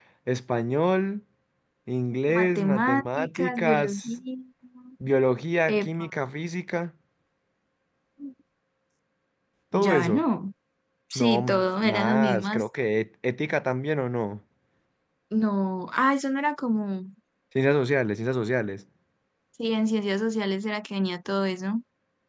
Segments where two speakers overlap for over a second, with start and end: 2.3-4.1, 11.2-12.6

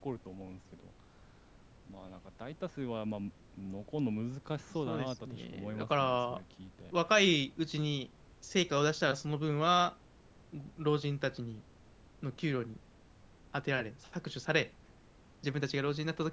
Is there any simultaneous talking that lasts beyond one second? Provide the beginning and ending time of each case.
4.9-6.4

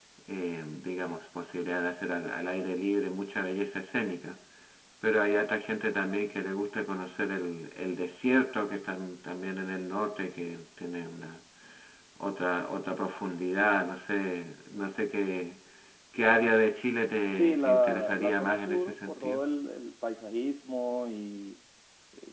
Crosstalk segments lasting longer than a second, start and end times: 17.3-19.4

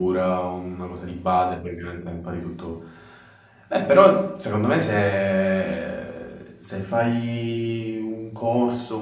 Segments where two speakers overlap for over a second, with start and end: none

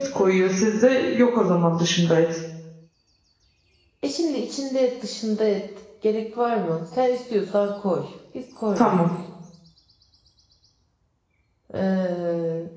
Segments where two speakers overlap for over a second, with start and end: none

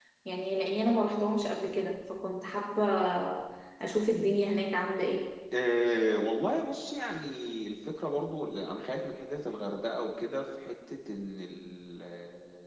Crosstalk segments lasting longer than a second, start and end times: none

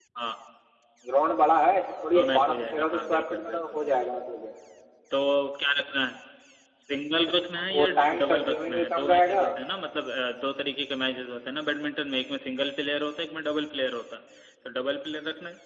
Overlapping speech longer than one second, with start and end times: 2.1-4.1, 7.6-9.4

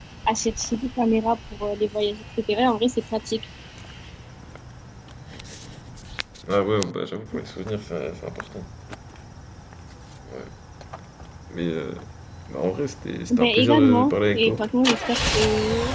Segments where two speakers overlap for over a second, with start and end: 13.3-14.6

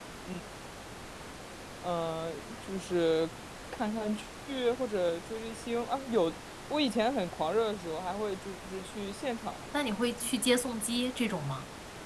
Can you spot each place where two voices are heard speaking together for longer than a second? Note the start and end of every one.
none

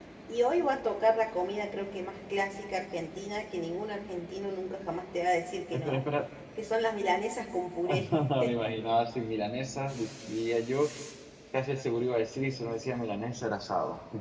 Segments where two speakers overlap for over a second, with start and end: none

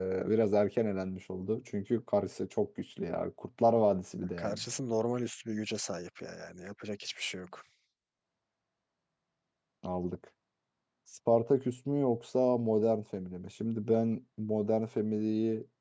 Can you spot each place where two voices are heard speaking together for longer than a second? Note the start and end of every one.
none

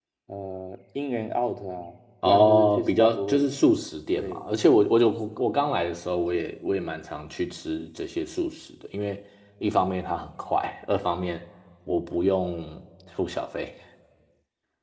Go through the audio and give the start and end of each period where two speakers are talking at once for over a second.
2.2-3.5

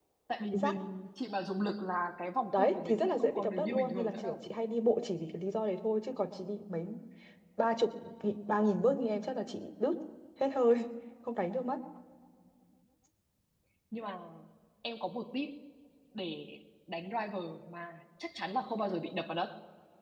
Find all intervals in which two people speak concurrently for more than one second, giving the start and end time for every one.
2.5-4.5

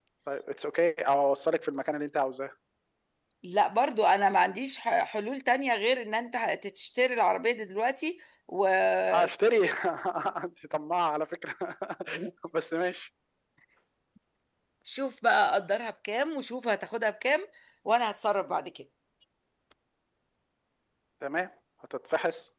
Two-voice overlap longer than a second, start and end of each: none

